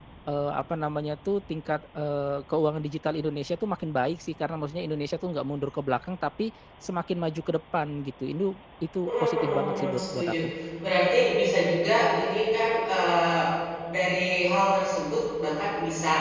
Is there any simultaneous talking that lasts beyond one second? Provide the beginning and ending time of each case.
9.1-10.3

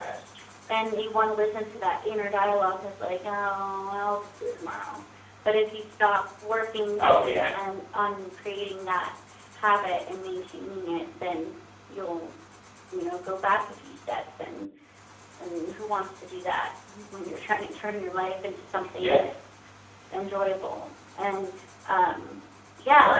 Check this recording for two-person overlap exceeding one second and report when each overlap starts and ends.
none

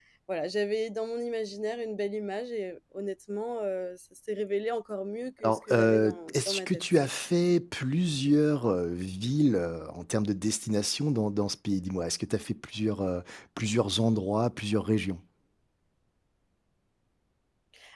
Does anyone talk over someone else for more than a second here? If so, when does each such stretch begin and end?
5.4-6.7

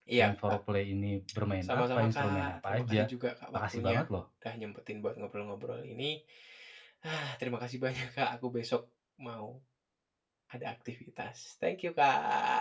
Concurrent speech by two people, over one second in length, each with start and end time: 1.6-3.1

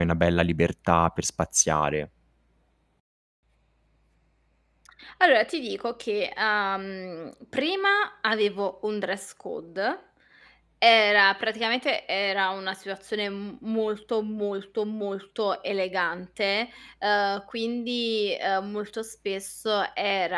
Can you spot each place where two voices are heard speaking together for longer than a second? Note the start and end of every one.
none

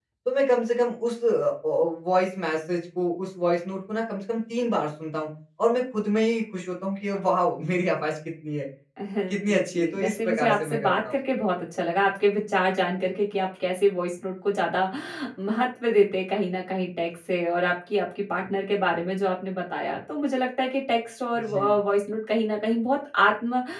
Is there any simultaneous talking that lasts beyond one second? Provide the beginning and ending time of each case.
9.3-11.2

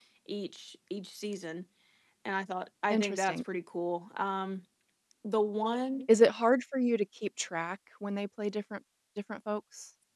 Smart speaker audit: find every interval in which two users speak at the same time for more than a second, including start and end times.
none

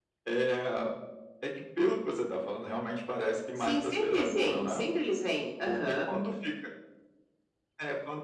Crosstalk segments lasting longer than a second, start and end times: 3.6-4.8

